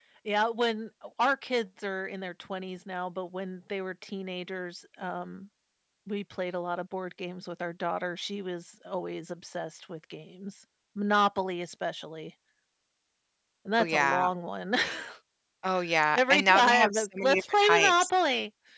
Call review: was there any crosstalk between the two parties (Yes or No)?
Yes